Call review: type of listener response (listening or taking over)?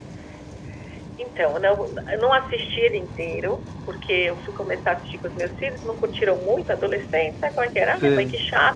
listening